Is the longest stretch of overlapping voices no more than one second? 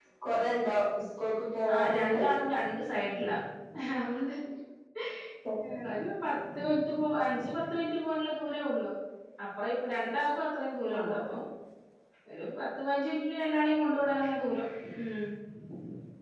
Yes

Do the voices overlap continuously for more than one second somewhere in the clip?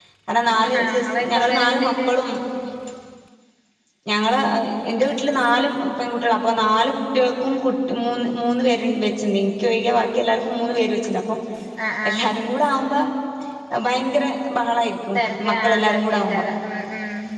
Yes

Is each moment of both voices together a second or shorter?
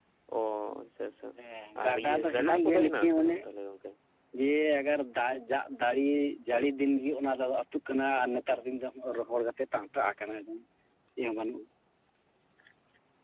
No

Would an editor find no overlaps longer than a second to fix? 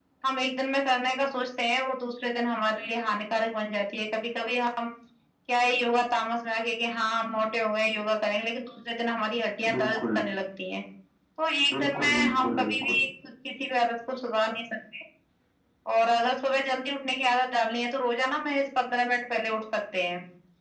No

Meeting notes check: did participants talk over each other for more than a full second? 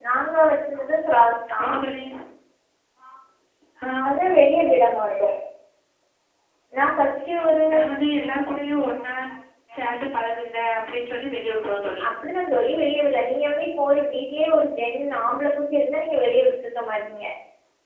No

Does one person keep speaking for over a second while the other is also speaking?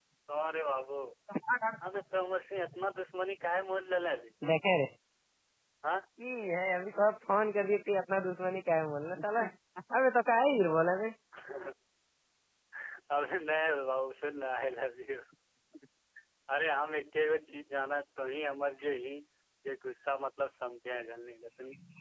No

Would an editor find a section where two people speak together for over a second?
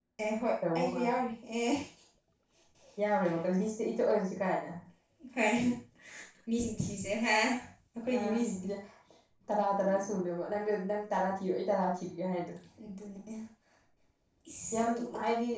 No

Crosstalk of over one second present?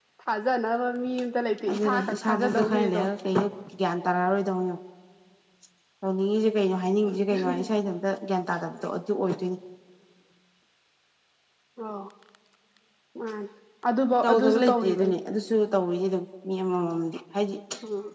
Yes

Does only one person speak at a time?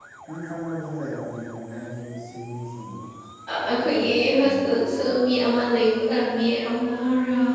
No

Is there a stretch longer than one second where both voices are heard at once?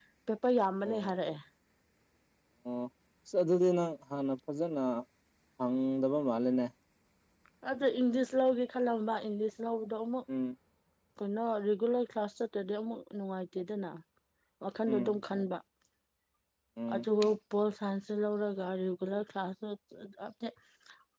No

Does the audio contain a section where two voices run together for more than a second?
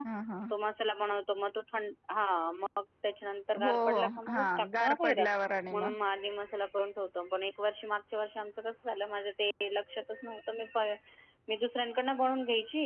Yes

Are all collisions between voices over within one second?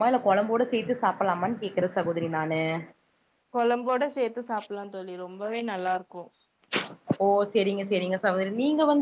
Yes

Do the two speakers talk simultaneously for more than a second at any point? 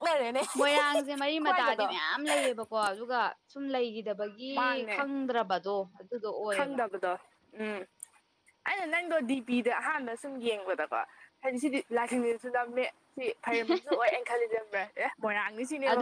No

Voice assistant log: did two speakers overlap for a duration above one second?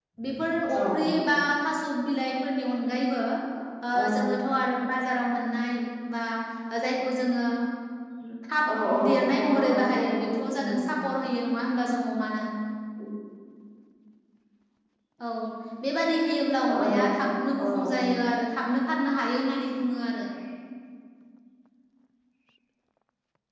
Yes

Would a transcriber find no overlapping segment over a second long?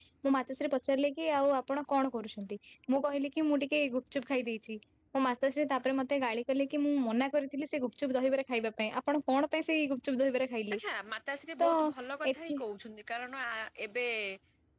Yes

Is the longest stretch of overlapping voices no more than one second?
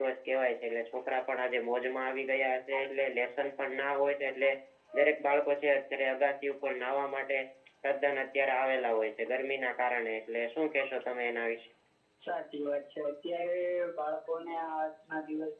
Yes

